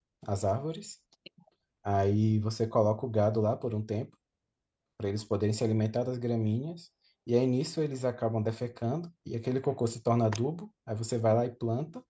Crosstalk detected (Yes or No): No